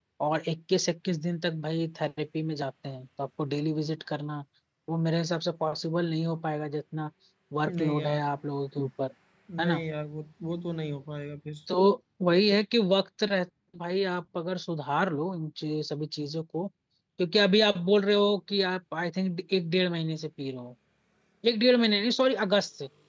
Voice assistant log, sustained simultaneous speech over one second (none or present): none